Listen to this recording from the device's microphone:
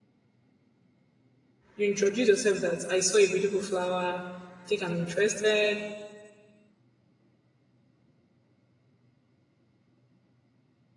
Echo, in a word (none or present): none